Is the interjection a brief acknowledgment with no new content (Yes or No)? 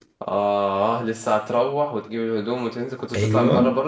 No